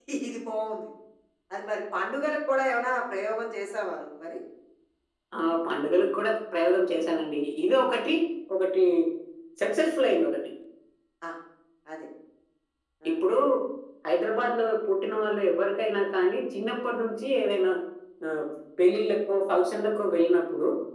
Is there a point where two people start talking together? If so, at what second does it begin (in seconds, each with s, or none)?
none